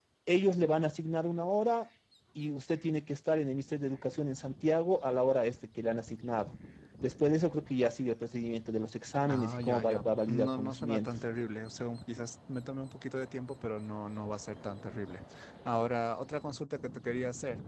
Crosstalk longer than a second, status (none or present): present